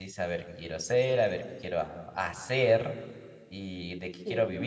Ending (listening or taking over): listening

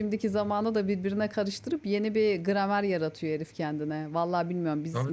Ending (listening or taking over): listening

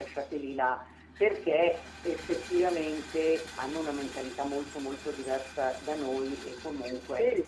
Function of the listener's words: listening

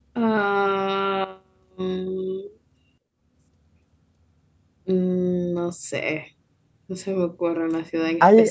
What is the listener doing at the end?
taking over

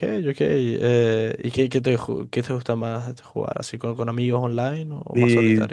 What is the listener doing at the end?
taking over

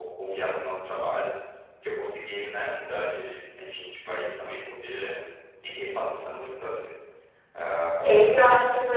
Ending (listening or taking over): taking over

